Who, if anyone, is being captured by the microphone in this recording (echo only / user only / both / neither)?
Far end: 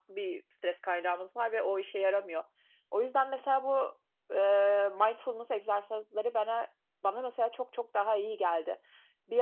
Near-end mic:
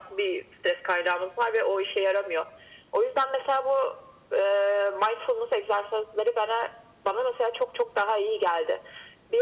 echo only